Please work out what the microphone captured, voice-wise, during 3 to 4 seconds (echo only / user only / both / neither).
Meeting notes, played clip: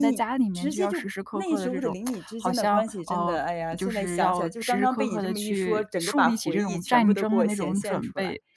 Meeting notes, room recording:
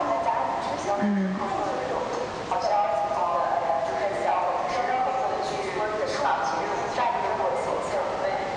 echo only